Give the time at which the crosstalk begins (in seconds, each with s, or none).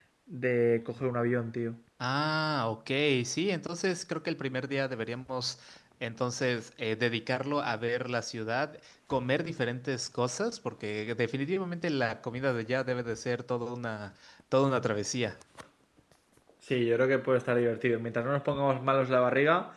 none